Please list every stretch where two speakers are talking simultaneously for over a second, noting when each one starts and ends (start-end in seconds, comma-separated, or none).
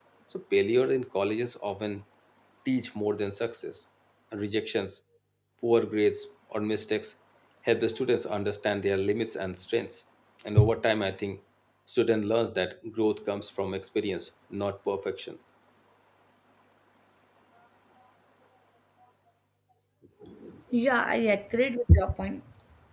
none